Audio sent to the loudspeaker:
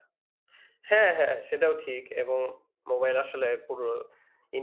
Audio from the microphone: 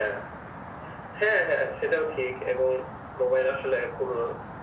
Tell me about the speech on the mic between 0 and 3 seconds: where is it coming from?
echo only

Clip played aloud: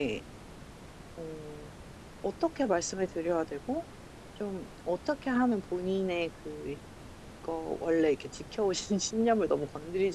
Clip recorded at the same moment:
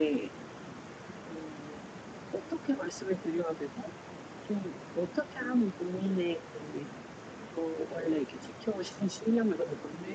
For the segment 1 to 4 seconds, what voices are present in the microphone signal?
echo only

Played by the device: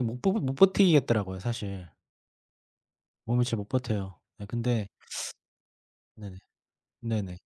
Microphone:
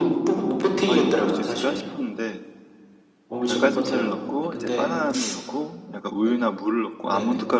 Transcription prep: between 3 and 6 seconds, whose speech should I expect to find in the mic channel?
both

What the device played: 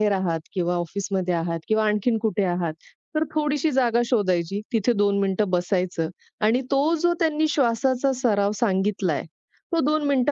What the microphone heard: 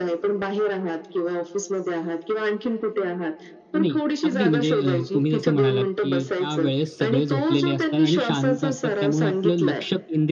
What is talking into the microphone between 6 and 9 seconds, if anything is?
both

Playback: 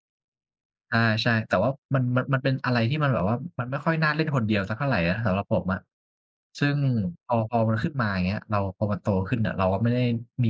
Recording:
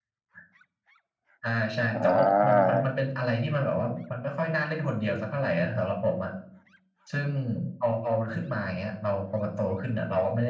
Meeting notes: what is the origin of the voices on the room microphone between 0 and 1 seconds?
neither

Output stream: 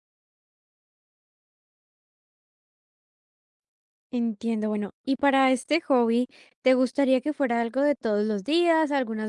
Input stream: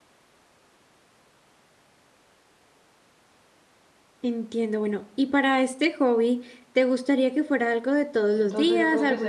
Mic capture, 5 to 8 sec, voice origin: echo only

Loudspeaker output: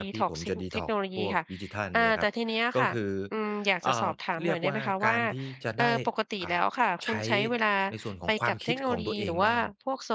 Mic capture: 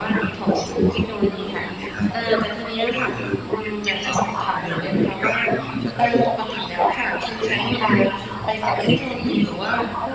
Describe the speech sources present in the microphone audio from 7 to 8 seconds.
echo only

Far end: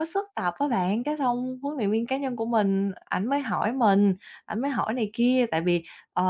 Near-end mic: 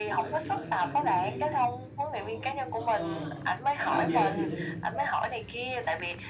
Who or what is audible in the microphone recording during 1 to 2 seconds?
both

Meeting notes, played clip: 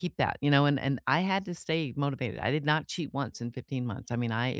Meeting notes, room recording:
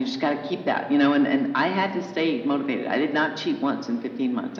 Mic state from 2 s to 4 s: echo only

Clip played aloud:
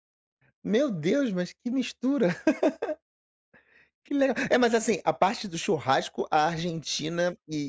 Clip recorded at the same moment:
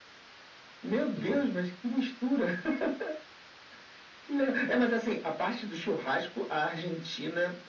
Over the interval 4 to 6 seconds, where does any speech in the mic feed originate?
echo only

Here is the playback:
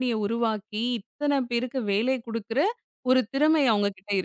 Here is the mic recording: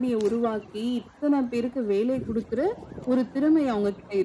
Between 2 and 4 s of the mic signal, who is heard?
echo only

